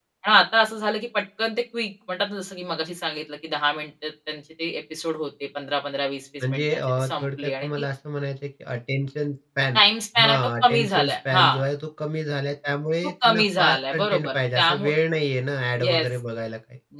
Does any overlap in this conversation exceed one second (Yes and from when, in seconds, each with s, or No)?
Yes, from 6.4 s